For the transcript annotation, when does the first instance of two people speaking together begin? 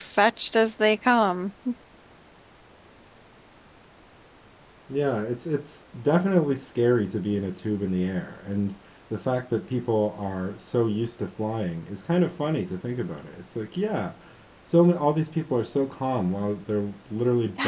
none

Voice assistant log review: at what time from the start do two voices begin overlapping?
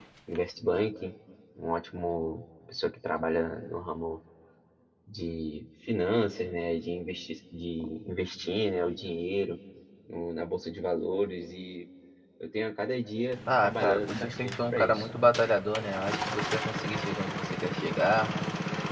13 s

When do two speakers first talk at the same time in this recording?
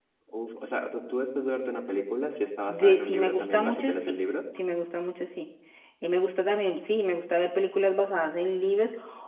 3 s

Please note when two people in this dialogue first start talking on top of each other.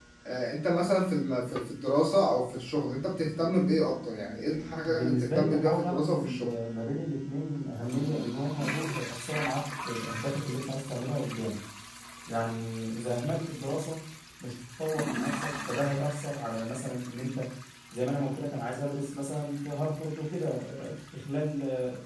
5 s

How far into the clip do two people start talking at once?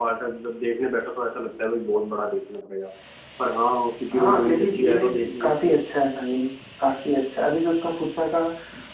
4 s

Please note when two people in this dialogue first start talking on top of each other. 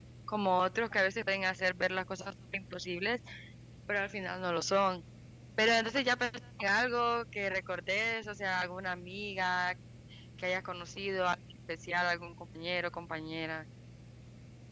none

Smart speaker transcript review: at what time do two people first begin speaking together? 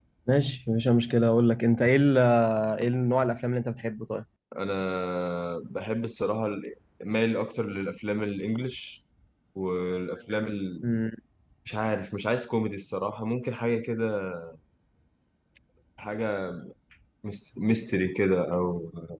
none

